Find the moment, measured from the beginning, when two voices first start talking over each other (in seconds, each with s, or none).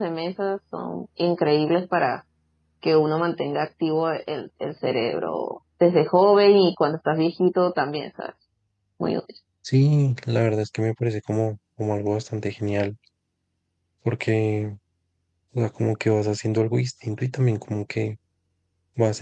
none